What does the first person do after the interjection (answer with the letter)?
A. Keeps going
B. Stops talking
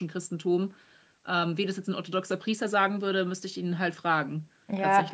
B